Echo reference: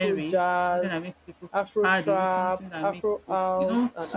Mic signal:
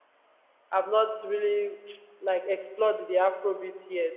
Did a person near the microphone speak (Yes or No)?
Yes